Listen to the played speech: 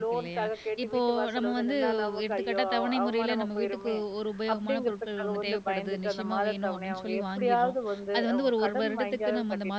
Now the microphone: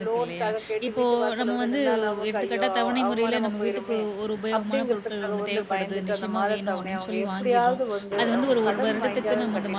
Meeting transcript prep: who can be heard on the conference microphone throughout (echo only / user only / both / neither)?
echo only